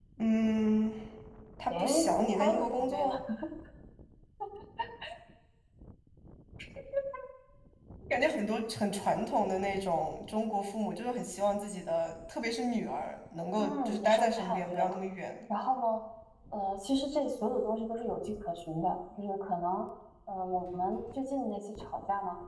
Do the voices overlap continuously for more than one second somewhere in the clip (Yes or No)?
Yes